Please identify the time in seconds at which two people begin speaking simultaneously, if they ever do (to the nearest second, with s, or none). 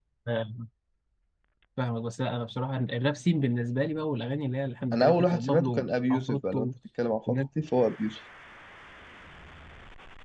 5 s